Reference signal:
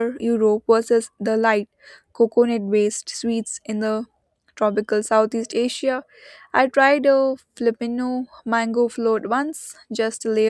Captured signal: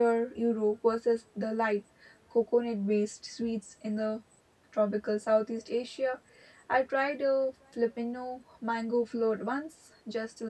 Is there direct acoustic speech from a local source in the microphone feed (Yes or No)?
No